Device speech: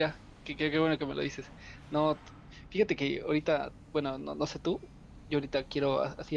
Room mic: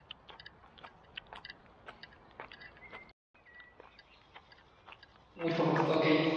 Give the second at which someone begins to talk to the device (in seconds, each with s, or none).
5.3 s